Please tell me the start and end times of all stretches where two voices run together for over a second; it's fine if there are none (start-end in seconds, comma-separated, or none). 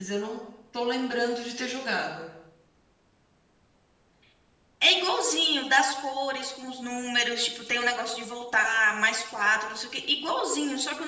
none